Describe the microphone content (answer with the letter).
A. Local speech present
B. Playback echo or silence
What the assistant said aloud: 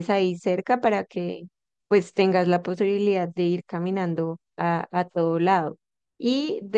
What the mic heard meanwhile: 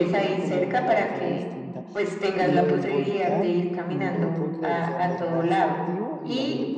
A